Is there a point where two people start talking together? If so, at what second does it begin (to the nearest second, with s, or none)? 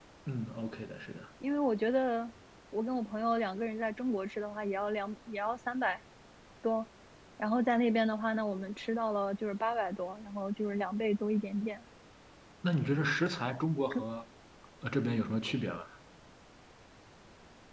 none